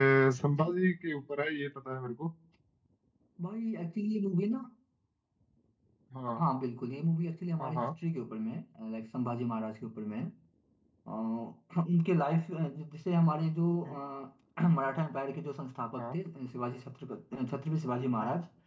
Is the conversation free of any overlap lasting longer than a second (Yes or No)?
Yes